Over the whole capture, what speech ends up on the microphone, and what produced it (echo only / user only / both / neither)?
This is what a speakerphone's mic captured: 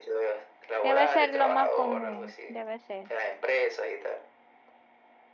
both